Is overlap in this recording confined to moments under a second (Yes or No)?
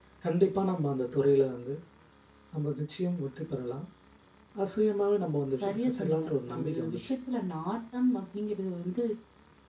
No